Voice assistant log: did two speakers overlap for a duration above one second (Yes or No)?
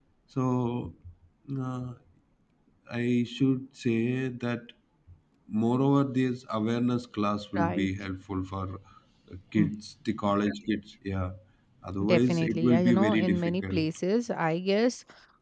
Yes